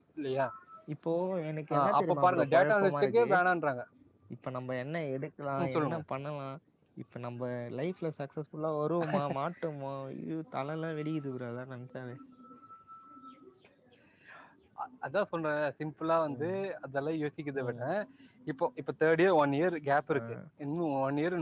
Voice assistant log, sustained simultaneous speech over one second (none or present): present